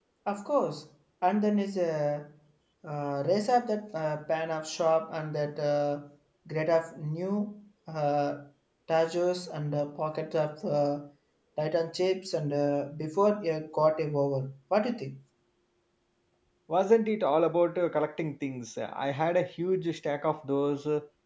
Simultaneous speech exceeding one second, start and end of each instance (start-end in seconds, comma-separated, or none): none